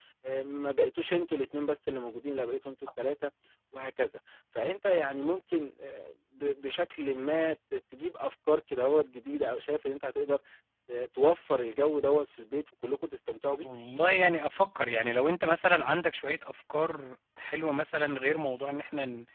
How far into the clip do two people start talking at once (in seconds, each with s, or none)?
none